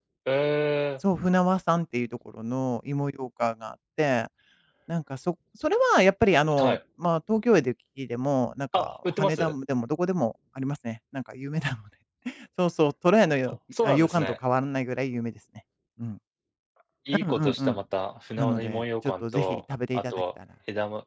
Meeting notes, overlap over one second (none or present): present